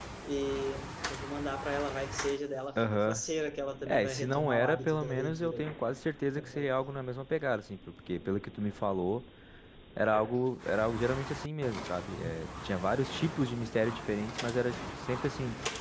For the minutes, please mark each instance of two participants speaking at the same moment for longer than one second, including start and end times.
3.9-5.7

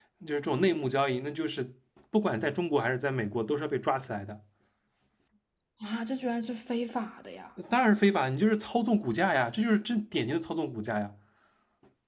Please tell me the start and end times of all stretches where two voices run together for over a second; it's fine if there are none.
none

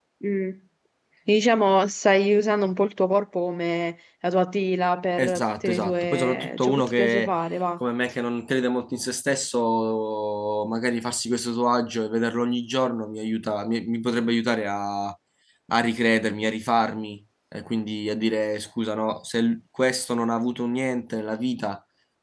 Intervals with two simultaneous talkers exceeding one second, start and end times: 5.2-7.3

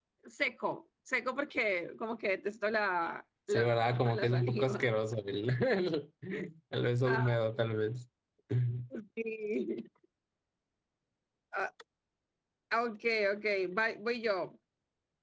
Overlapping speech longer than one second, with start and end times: 3.5-4.8

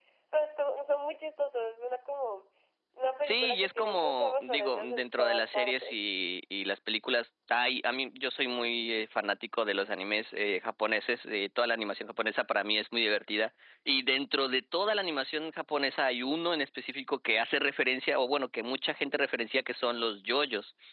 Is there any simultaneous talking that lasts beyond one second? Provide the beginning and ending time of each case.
3.2-5.9

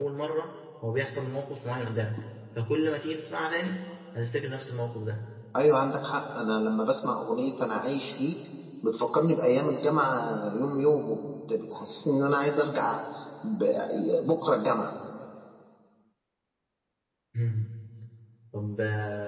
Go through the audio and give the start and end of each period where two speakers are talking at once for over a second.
none

